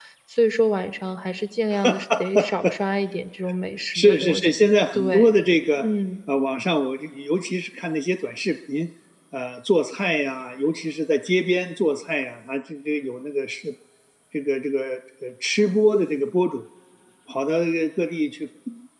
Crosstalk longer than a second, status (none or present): present